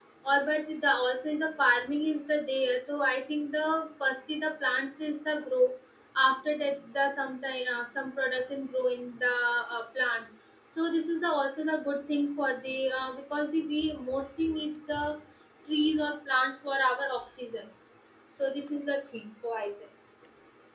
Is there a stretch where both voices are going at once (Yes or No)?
No